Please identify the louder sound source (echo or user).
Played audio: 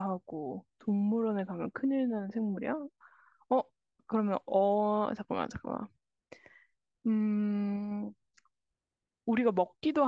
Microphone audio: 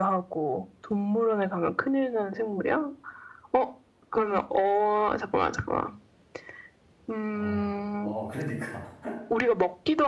echo